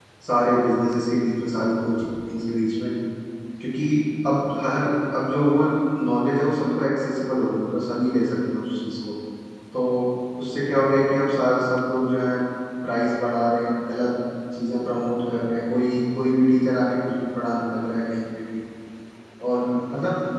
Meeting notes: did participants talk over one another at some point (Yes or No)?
No